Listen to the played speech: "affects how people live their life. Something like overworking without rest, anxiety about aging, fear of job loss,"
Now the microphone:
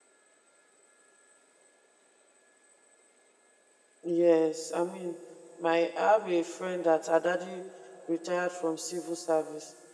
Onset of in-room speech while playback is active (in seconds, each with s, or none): 4.0 s